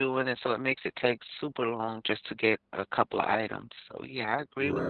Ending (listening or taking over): taking over